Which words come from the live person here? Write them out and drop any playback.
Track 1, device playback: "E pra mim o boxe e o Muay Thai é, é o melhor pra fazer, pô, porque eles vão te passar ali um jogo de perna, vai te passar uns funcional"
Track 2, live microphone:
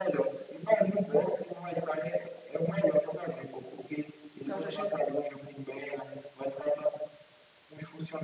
O cara já chega com.

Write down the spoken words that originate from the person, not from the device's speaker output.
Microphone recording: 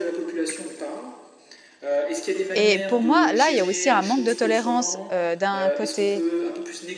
Et pour moi, là, il y a aussi un manque de tolérance euh, d'un côté,

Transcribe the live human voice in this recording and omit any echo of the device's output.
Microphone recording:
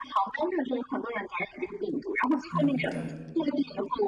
嗯，对，

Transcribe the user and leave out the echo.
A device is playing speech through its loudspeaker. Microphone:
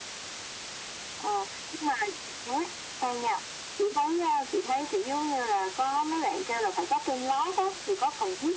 none

